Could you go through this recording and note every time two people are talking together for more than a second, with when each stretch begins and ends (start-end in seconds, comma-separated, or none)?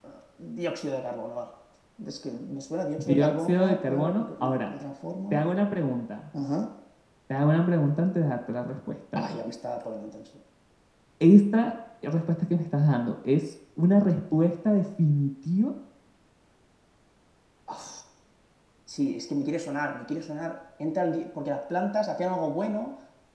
3.0-4.7